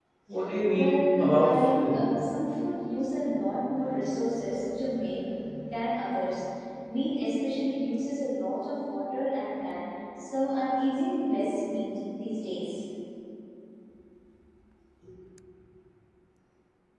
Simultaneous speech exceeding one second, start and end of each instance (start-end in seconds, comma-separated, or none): 0.7-2.0